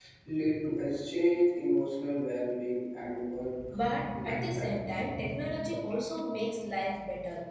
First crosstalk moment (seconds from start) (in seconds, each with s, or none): 3.7 s